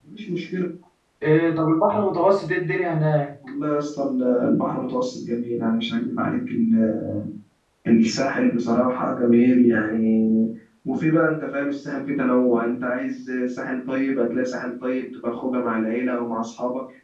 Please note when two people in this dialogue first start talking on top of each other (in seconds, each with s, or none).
none